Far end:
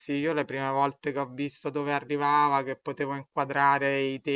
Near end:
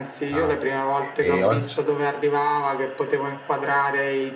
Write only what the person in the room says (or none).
Ah. E oggi...